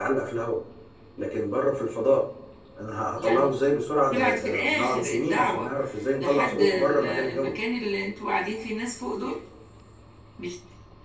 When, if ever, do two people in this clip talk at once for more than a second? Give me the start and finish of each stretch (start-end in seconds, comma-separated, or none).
4.1-5.7, 6.2-7.6